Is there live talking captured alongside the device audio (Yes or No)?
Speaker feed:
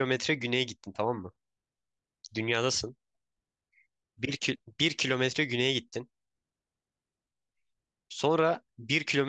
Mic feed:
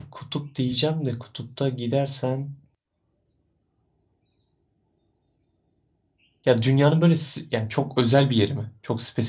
Yes